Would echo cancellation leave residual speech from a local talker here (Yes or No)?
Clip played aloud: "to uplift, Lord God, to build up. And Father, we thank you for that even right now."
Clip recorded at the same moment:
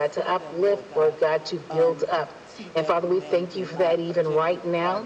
Yes